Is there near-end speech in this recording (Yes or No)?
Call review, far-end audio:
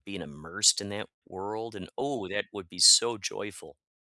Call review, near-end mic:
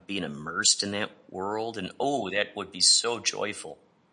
No